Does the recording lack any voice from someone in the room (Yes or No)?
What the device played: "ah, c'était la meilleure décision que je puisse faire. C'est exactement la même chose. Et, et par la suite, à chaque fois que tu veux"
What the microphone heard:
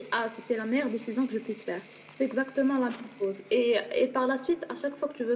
Yes